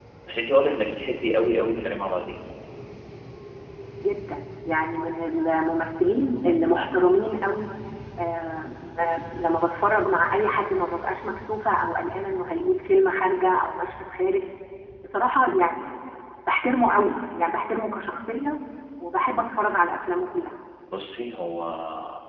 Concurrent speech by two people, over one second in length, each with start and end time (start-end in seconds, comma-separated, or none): none